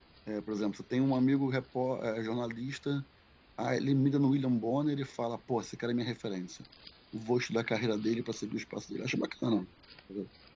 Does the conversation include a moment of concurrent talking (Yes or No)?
No